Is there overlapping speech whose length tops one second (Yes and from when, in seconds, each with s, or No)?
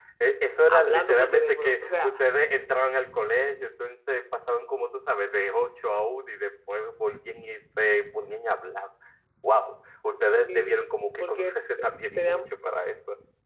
Yes, from 0.7 s